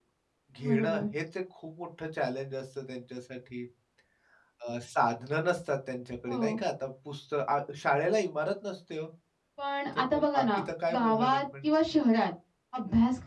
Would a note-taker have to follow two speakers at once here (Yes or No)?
Yes